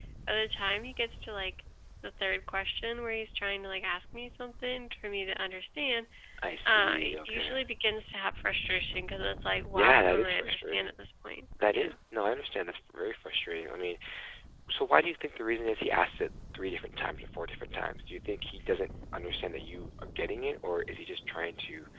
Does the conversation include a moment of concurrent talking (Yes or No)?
Yes